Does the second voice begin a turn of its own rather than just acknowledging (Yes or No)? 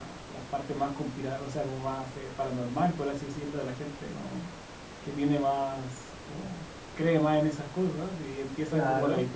No